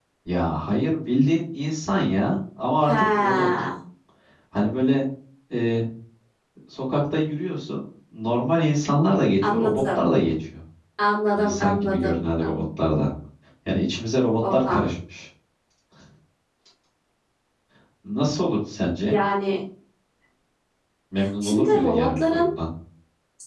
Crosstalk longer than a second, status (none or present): present